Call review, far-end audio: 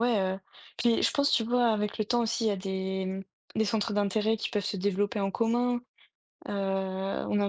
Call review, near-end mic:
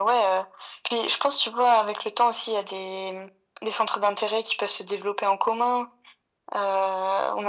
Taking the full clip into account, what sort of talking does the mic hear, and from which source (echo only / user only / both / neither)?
echo only